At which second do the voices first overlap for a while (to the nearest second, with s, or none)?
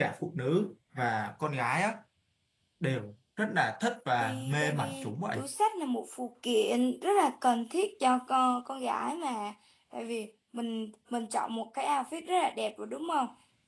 4 s